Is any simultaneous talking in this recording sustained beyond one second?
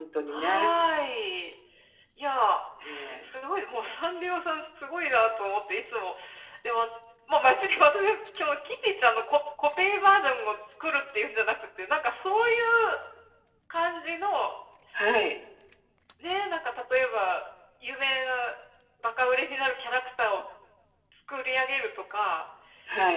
No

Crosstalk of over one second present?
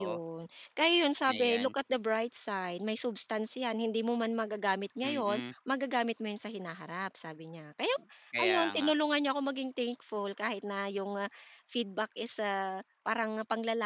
No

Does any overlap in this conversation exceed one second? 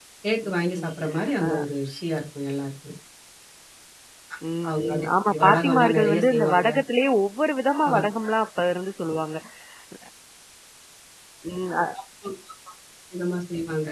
Yes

